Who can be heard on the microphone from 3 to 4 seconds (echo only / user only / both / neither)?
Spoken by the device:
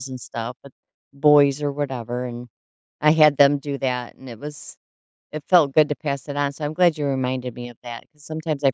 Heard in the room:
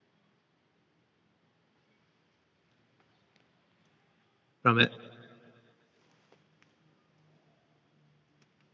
neither